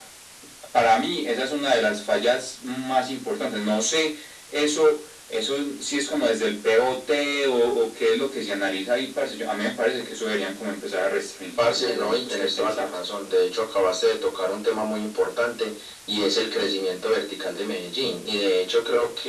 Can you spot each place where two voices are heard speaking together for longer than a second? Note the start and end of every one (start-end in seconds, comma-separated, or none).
11.6-12.9